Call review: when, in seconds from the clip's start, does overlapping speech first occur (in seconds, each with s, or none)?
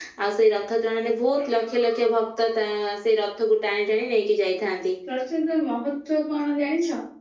none